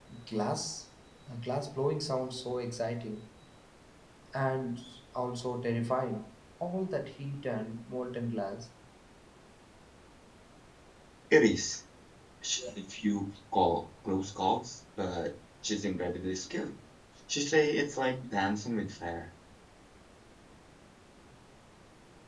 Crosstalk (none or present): none